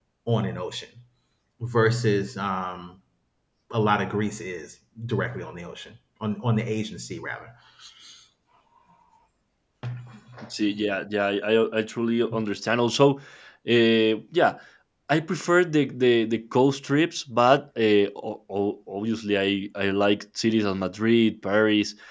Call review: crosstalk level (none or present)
none